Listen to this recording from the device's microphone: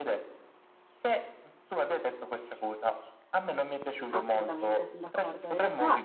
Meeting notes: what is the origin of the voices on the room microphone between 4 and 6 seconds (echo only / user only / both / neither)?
both